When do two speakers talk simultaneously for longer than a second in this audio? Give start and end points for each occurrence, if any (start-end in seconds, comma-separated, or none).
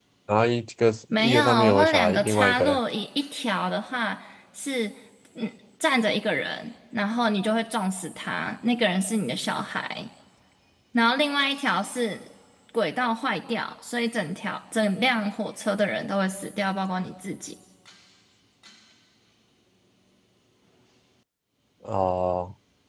1.2-2.8